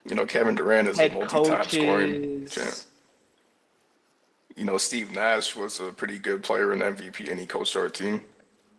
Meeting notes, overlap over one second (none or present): present